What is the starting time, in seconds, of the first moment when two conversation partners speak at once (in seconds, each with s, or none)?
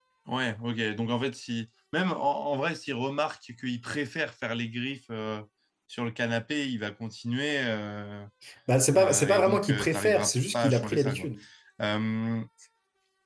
9.0 s